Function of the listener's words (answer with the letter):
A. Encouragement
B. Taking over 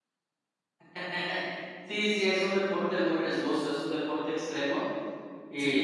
A